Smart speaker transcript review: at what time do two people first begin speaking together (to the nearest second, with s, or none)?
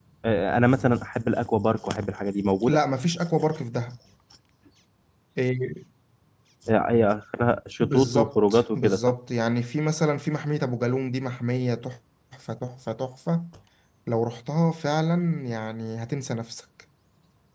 8 s